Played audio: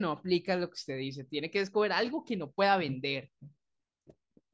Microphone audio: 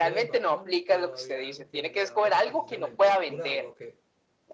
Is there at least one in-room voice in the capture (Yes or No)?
Yes